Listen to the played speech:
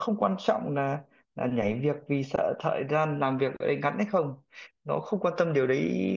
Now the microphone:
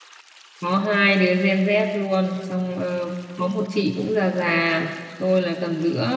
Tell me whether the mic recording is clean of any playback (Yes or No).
Yes